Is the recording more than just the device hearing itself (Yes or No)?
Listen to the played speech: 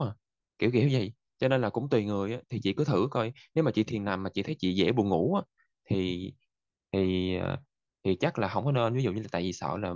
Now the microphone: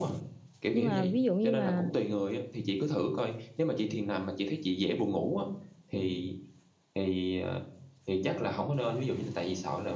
Yes